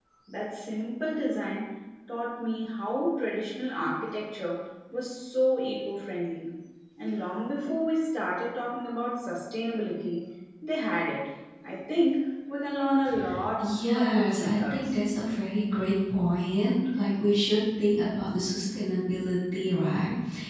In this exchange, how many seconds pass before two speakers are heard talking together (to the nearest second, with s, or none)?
14 s